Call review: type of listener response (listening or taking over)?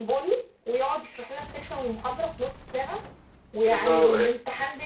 listening